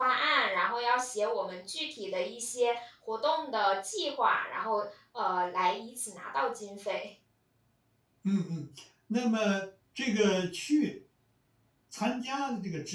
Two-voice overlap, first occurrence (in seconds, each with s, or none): none